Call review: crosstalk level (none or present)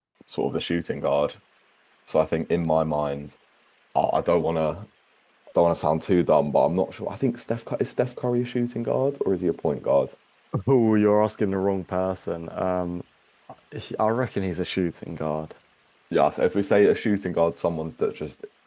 none